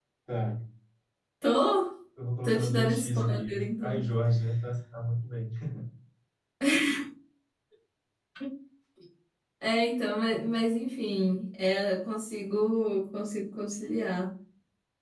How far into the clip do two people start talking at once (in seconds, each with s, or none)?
2.4 s